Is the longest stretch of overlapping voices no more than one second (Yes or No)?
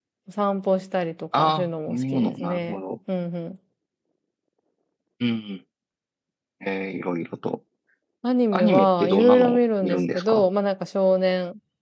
No